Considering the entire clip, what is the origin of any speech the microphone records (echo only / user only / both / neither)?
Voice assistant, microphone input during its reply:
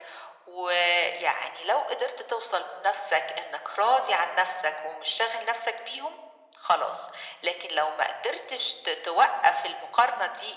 echo only